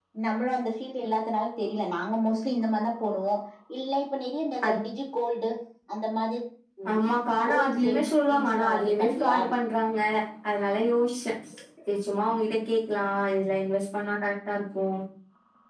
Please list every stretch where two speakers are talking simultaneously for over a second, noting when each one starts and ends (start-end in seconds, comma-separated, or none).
7.5-9.5